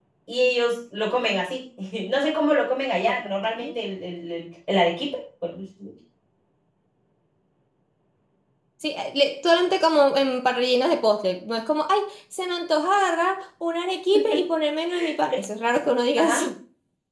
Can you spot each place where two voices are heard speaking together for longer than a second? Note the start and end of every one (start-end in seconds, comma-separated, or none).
none